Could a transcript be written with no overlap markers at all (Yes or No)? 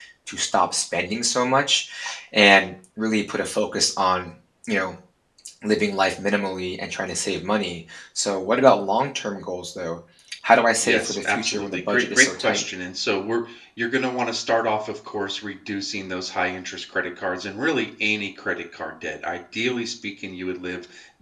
No